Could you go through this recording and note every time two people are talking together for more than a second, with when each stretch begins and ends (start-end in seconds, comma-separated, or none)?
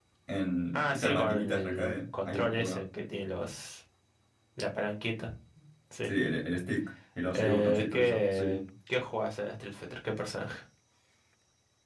0.7-2.8, 7.3-8.6